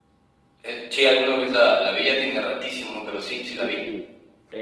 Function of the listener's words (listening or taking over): taking over